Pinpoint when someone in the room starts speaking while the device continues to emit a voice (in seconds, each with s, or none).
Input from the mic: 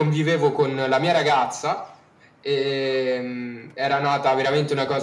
none